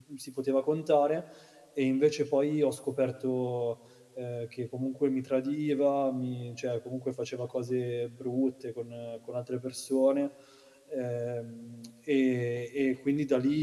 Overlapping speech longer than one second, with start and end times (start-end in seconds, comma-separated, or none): none